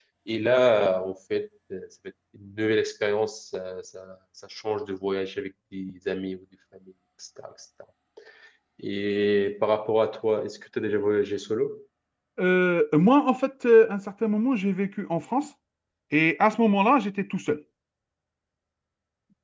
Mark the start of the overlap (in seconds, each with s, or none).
none